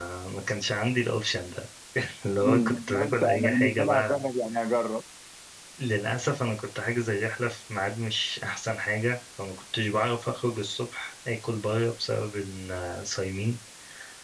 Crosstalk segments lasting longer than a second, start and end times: 2.5-4.2

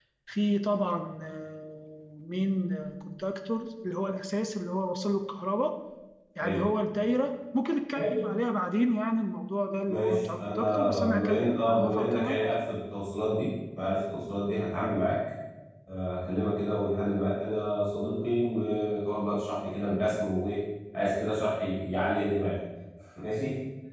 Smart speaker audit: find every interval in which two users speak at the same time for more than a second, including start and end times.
9.9-12.4

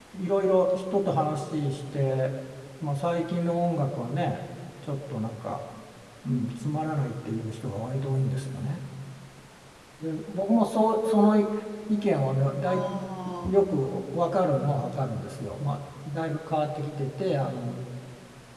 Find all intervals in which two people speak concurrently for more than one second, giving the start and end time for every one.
none

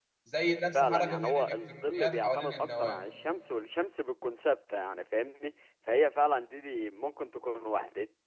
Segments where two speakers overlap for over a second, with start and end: 0.7-3.0

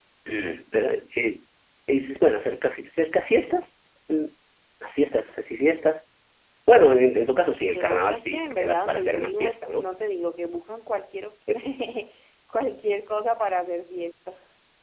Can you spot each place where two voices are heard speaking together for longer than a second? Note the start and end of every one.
7.7-9.9

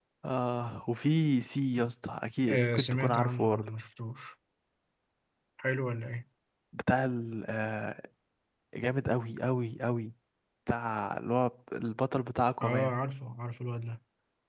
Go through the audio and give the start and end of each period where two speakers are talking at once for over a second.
2.5-3.7

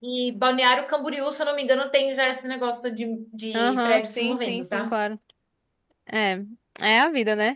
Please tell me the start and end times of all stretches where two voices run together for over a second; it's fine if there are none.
3.5-5.0

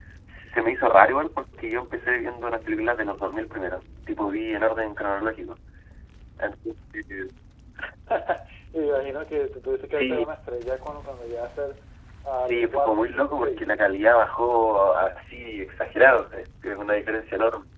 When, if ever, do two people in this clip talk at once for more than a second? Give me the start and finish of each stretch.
12.4-13.6

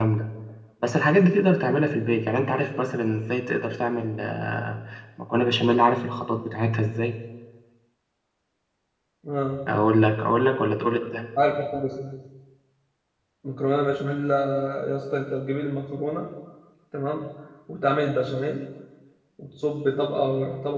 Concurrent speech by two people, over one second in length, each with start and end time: none

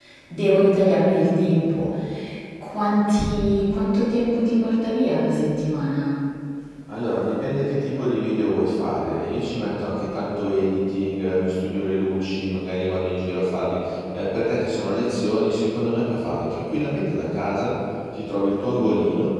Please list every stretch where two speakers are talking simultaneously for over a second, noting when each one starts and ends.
none

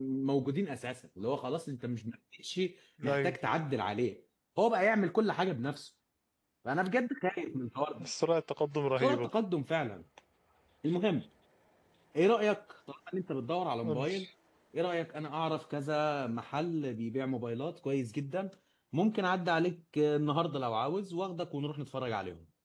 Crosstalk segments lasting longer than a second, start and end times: none

